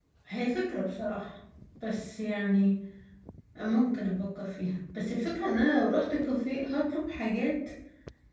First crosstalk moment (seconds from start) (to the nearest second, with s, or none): none